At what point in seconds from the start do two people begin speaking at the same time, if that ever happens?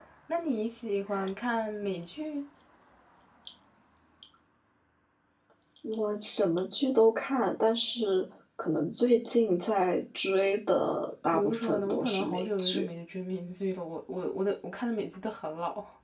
11 s

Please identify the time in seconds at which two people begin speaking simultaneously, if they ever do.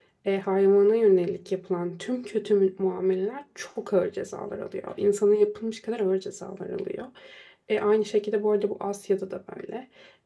none

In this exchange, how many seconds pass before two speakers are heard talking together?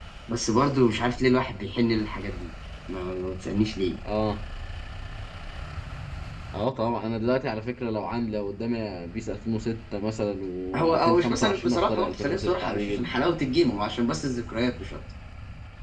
11 s

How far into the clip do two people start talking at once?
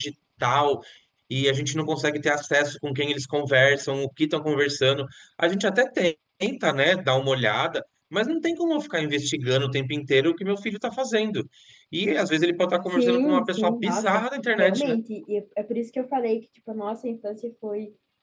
13 s

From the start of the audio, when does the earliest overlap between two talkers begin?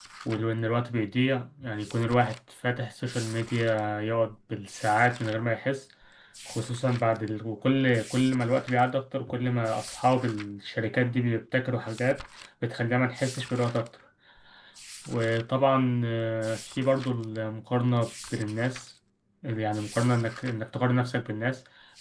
none

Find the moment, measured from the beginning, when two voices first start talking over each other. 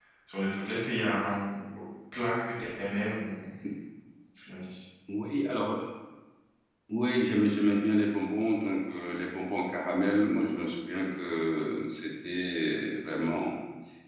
none

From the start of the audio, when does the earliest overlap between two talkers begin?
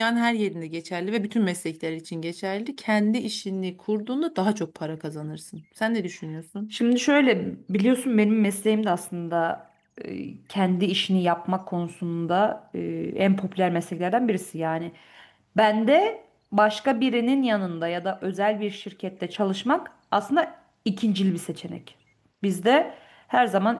none

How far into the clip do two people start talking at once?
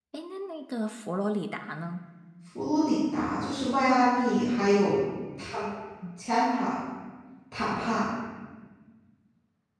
none

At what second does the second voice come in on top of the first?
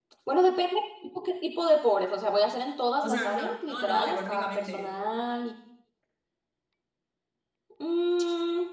3 s

